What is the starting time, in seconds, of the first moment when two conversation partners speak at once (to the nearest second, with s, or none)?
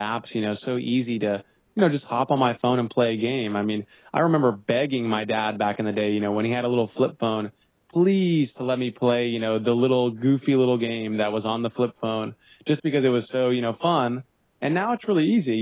none